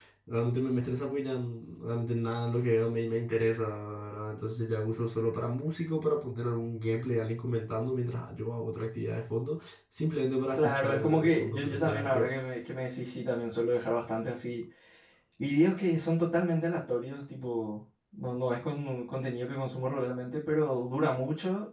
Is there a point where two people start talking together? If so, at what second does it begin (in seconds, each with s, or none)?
10.5 s